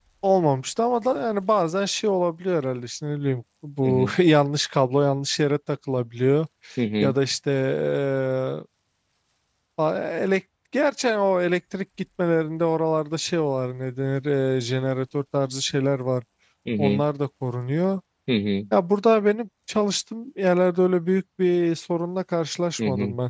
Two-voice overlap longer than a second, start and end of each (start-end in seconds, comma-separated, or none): none